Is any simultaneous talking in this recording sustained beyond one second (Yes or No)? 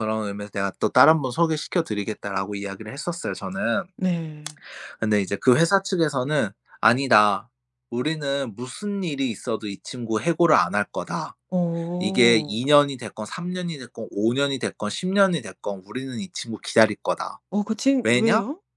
No